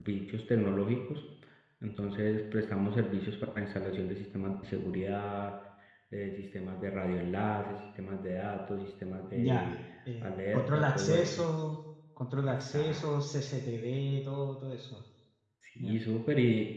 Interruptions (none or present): present